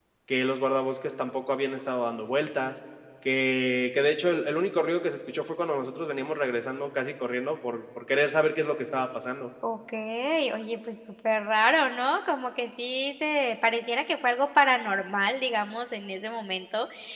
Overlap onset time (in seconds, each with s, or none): none